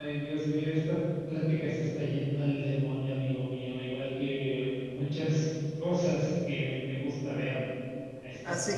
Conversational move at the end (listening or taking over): taking over